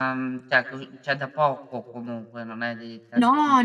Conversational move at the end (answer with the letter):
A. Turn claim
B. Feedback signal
A